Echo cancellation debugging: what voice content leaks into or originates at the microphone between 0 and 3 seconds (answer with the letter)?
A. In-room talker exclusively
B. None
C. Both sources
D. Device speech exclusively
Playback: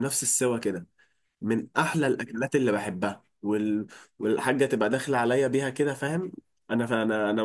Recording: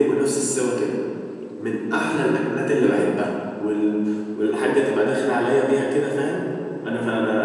D